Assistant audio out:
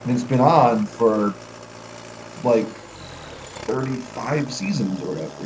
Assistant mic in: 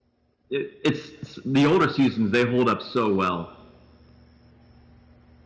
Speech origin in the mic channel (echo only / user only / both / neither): user only